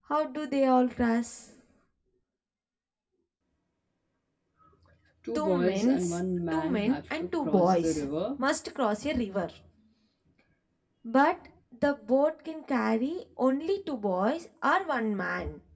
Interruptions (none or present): present